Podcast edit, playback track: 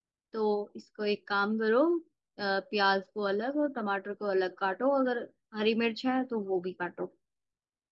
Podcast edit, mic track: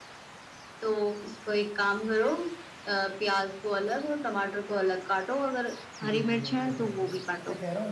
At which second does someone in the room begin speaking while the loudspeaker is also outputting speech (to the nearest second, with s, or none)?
6 s